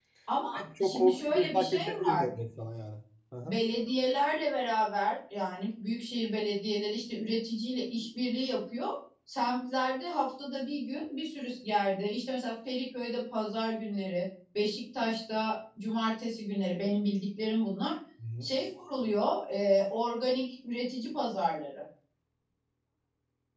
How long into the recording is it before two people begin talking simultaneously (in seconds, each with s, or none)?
0.6 s